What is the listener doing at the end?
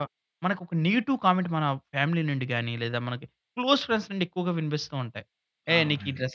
listening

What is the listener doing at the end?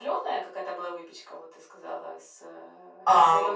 taking over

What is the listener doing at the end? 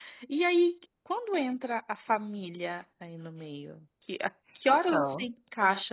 listening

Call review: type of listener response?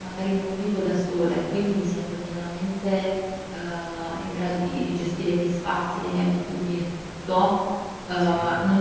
listening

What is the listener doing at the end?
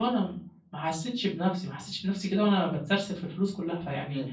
listening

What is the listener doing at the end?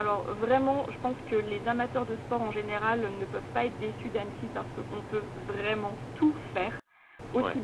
listening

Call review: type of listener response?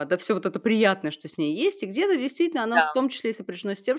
listening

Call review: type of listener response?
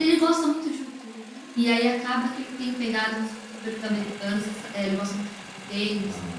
listening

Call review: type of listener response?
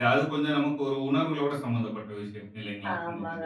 taking over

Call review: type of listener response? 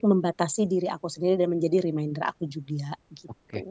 taking over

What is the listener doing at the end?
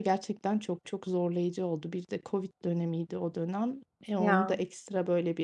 listening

